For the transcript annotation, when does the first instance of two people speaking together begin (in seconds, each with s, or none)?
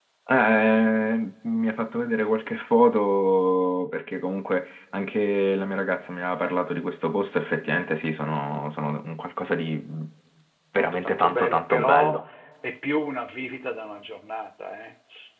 10.8 s